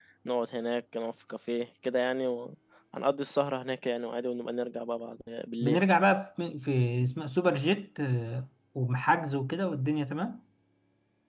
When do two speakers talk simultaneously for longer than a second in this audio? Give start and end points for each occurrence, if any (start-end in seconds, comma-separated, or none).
none